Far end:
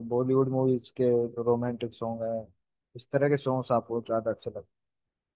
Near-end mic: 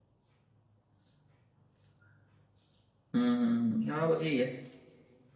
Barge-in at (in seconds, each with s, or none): 3.1 s